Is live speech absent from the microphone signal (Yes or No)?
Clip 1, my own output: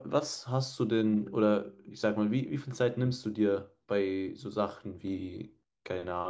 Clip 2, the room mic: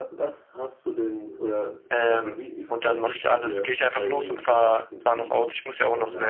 No